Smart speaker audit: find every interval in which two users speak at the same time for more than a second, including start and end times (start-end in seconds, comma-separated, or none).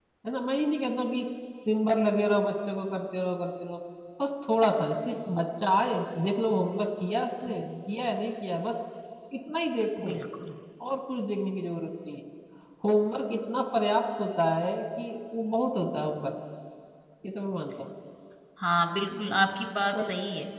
none